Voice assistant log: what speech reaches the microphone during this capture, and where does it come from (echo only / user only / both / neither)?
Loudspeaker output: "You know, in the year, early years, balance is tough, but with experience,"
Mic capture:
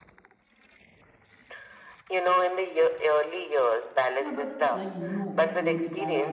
both